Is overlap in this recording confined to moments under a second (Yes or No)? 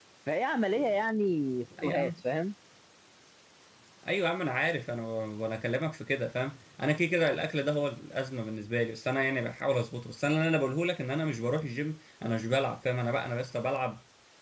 Yes